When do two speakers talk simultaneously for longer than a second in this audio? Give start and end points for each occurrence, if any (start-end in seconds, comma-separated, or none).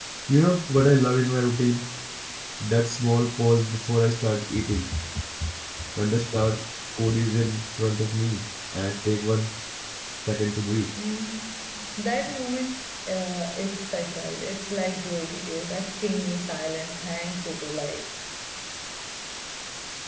none